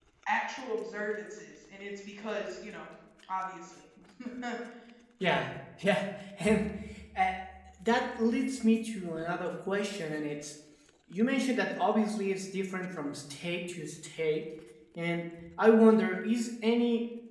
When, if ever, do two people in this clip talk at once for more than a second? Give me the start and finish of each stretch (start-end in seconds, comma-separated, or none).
none